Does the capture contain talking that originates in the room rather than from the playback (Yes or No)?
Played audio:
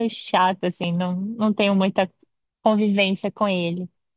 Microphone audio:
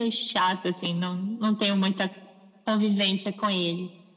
No